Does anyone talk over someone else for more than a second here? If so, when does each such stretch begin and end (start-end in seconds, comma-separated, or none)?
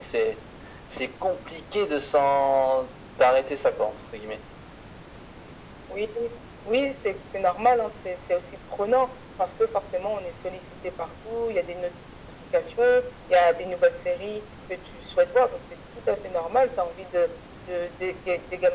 none